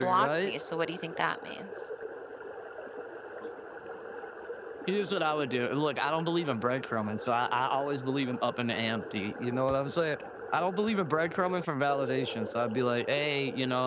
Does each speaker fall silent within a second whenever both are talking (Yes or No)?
Yes